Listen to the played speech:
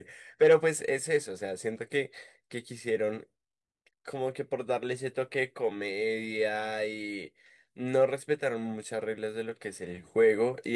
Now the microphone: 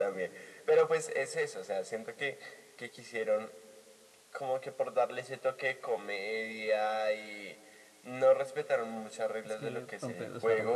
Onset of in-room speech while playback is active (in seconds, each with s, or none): 9.4 s